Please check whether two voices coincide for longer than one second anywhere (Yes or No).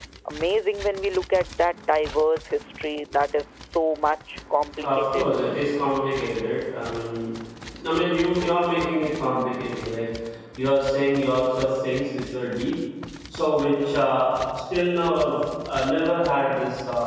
No